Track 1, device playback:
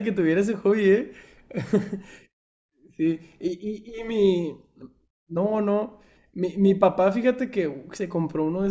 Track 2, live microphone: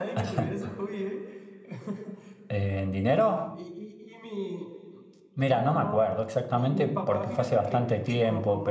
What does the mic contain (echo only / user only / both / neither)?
both